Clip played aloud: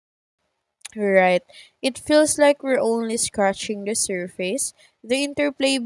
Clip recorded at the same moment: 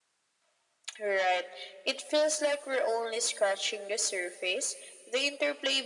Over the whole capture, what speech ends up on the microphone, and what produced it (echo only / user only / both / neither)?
echo only